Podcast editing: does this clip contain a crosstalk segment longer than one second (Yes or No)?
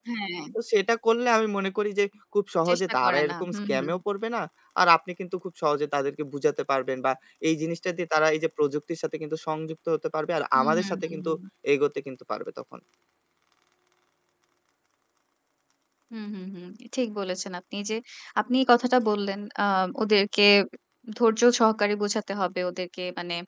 Yes